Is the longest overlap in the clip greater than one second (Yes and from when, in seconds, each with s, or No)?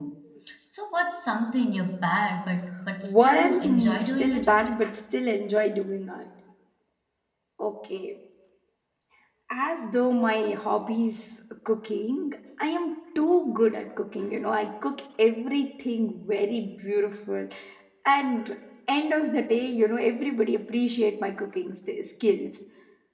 Yes, from 3.0 s